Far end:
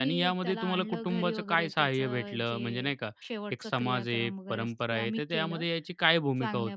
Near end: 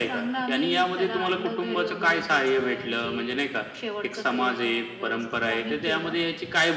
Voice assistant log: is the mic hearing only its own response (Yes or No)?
Yes